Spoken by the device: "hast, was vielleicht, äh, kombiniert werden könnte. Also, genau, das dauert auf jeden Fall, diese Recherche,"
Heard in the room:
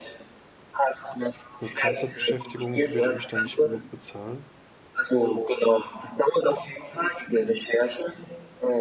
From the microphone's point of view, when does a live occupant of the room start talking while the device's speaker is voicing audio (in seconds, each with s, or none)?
1.6 s